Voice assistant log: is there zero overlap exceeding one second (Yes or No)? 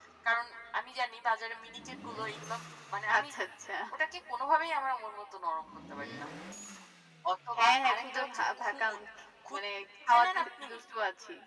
No